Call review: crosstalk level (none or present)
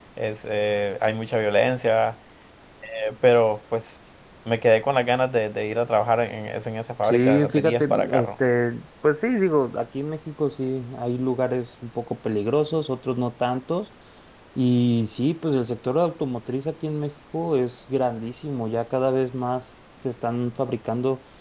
present